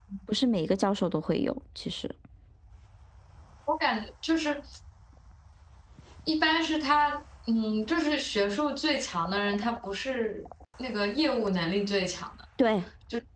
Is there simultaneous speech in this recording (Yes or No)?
No